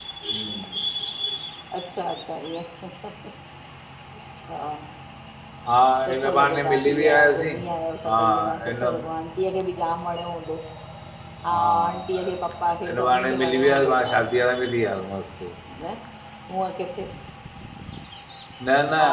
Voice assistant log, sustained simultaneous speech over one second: present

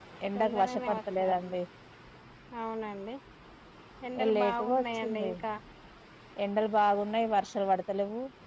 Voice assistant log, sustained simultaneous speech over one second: present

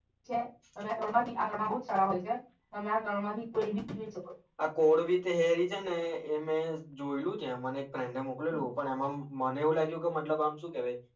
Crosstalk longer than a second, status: none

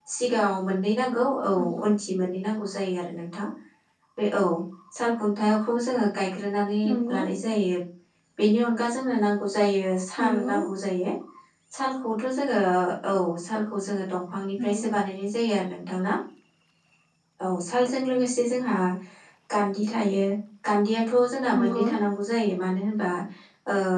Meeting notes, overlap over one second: none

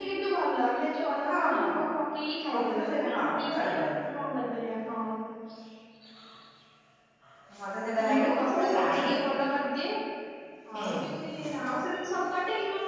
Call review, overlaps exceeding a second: present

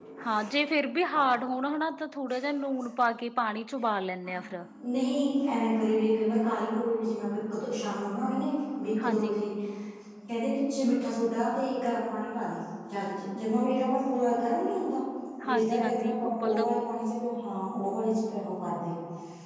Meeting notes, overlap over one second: present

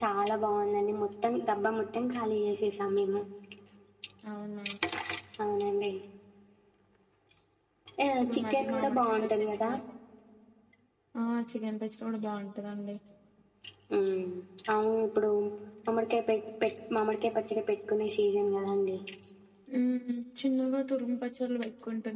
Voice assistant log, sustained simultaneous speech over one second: present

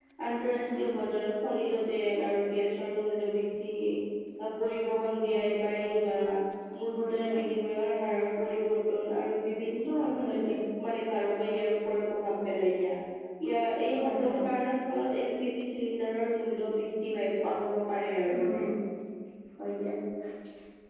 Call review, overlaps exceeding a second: none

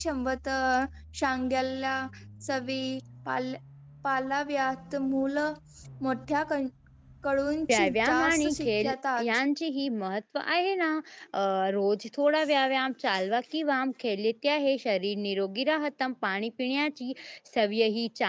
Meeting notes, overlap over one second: present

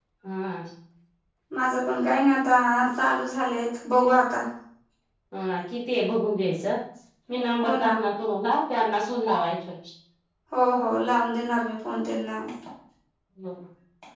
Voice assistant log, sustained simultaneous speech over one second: none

